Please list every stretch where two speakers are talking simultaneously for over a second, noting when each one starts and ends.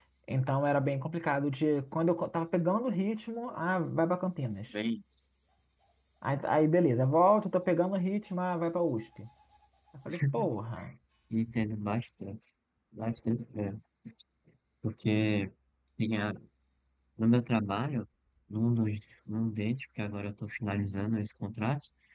none

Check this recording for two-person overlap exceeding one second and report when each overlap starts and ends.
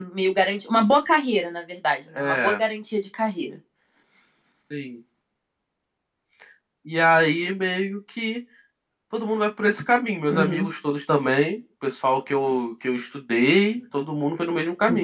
none

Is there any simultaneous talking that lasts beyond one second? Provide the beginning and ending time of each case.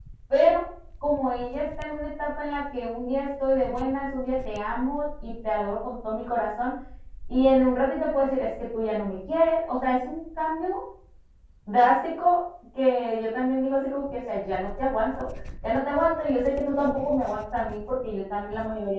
none

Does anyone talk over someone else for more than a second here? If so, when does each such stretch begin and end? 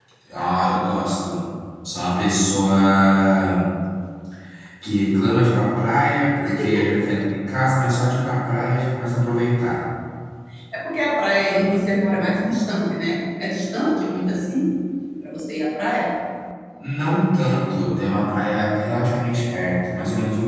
none

